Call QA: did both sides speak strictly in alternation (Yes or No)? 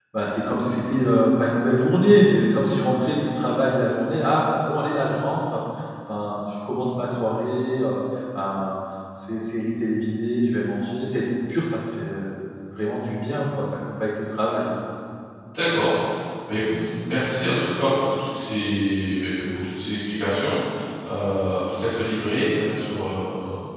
Yes